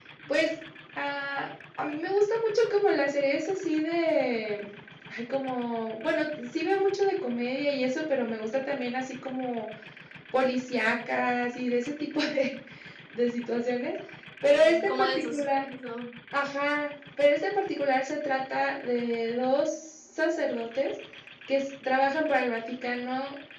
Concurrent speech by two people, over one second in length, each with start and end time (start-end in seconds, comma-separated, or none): 14.4-15.7